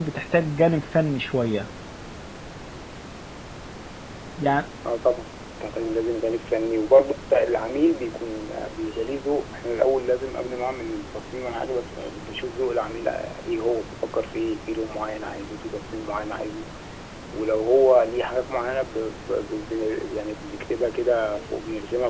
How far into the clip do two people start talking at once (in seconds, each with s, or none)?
none